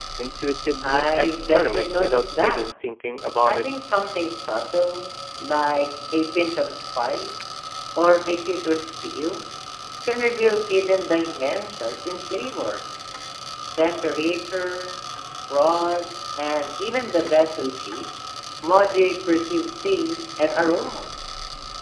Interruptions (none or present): present